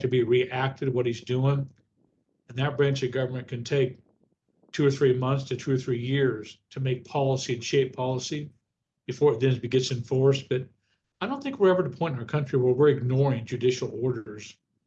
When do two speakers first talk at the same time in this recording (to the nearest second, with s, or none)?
none